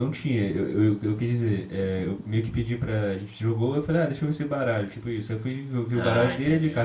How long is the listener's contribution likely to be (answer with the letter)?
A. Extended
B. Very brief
B